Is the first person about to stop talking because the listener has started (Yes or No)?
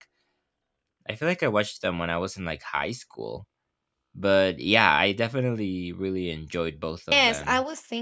Yes